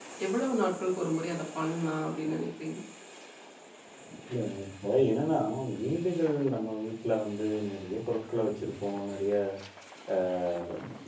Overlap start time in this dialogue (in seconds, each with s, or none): none